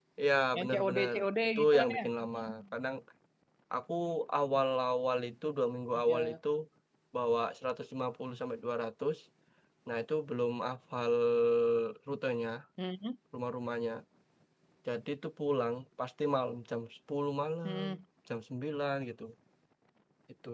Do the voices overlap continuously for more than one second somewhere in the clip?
Yes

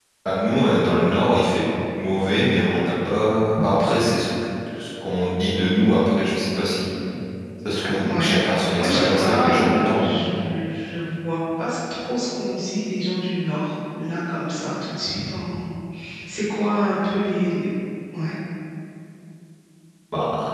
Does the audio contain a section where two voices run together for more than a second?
Yes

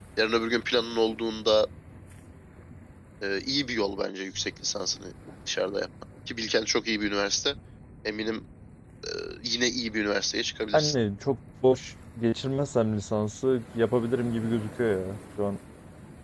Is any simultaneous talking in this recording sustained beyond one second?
No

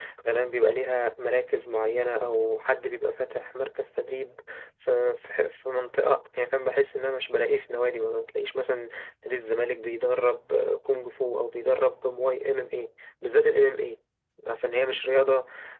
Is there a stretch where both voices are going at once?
No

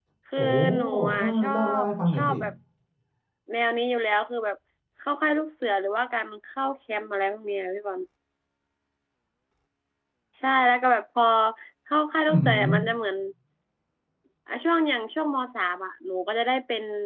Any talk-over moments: Yes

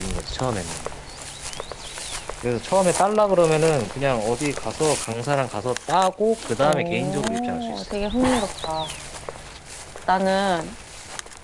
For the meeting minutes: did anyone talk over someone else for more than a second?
Yes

